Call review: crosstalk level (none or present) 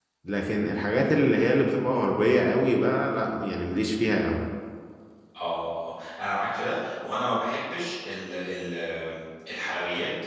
none